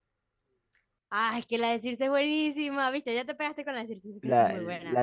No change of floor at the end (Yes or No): No